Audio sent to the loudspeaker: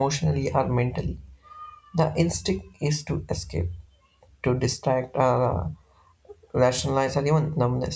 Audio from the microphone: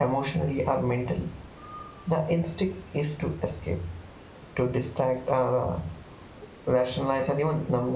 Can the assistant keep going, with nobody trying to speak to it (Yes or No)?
Yes